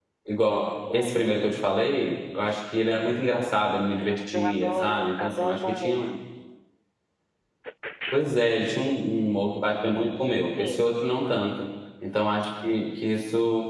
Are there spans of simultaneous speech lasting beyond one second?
Yes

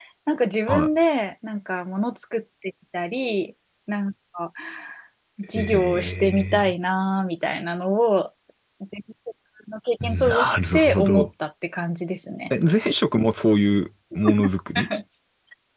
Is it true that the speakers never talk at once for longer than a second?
No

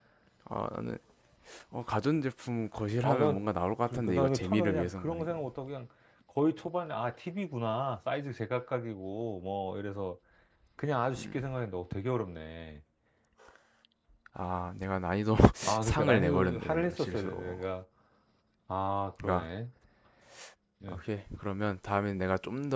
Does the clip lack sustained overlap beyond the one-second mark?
No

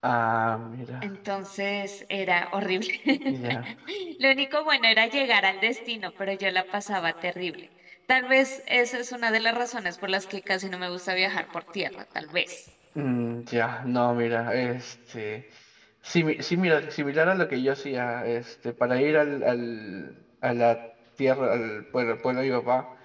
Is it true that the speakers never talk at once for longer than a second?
Yes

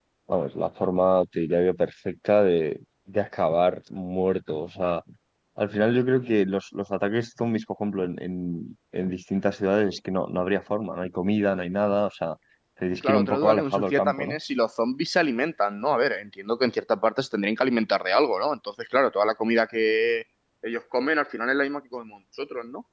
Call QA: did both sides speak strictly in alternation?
No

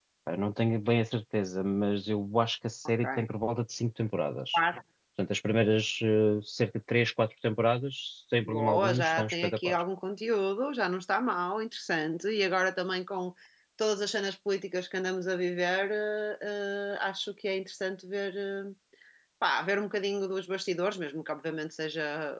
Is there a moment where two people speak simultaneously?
Yes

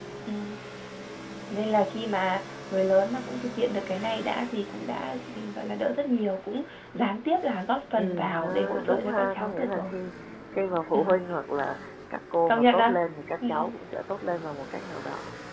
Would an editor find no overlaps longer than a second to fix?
No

